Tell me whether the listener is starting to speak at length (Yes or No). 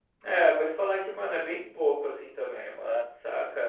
No